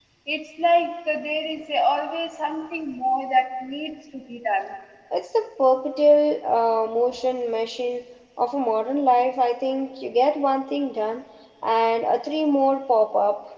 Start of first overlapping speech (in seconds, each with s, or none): none